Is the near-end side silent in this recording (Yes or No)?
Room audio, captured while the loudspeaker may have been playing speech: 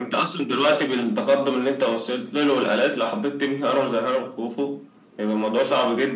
Yes